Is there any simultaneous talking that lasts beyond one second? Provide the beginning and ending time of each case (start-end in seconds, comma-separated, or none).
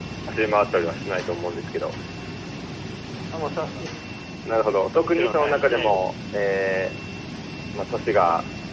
4.6-6.0